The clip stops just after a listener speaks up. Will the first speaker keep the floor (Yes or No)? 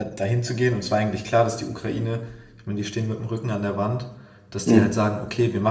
Yes